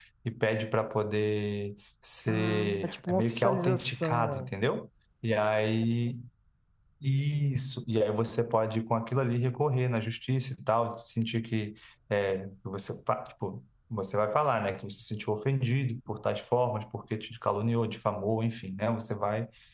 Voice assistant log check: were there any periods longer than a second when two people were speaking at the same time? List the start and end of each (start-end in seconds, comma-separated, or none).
2.3-4.5